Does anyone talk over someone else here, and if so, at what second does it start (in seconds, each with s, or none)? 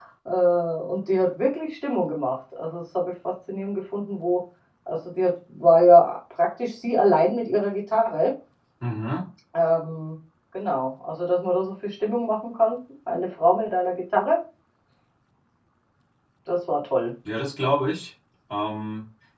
none